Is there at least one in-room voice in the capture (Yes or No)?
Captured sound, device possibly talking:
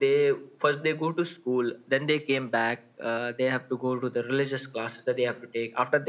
No